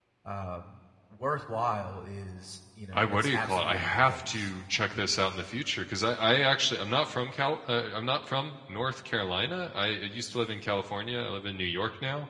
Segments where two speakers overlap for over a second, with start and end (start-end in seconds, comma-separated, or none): 2.9-4.5